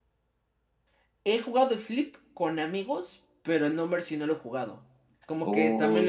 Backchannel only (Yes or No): No